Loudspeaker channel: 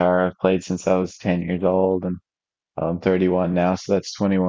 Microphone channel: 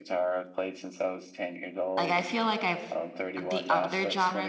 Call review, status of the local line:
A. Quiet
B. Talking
B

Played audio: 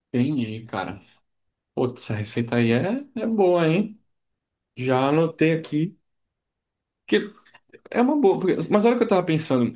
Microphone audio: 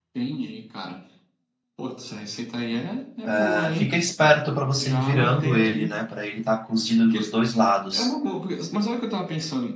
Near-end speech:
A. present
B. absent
A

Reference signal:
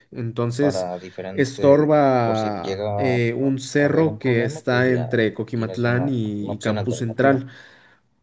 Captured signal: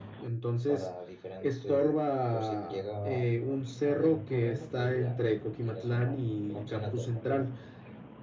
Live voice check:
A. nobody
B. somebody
A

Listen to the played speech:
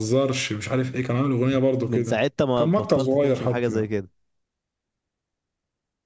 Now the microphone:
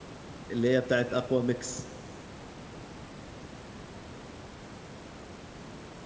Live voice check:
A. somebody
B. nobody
A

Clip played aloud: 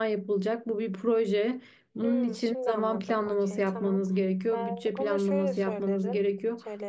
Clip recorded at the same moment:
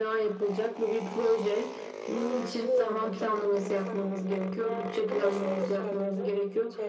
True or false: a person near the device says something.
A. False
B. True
A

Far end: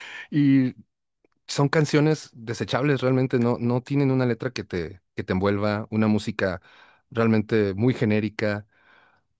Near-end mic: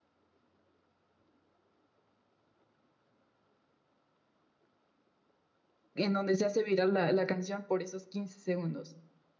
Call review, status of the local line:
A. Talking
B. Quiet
A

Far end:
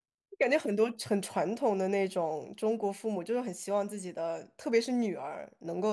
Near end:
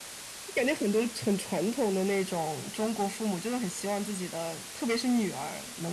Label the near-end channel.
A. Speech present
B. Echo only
B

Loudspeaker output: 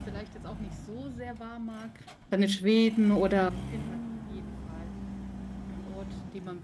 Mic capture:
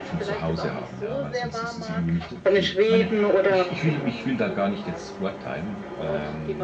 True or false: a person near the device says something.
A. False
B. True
B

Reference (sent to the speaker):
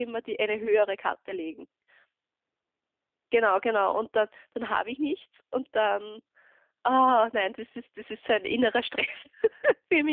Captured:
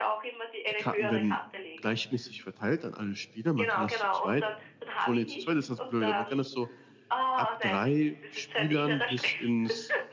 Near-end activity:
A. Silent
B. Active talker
B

